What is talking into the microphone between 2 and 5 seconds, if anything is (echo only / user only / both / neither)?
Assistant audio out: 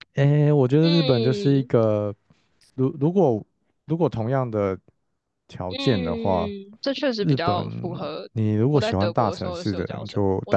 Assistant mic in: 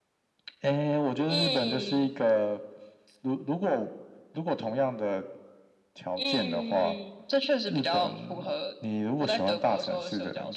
echo only